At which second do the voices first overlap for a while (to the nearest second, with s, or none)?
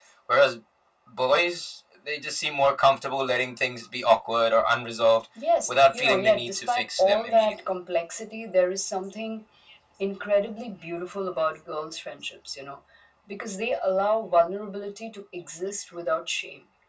6 s